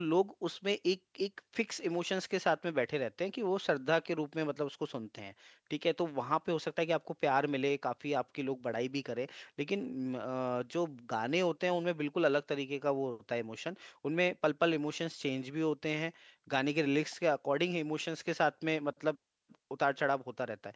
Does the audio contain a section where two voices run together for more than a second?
No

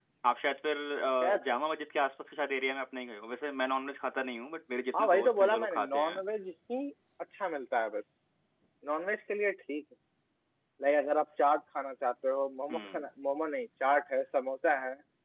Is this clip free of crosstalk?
No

